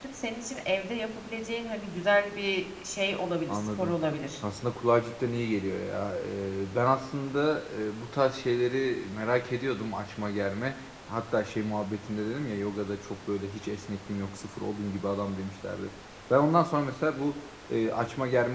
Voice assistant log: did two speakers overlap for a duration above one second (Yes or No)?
No